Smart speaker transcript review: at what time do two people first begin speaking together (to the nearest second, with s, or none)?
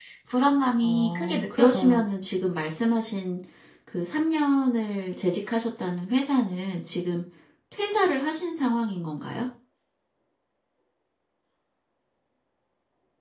1 s